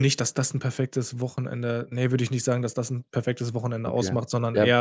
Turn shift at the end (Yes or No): Yes